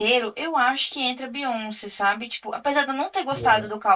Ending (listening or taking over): listening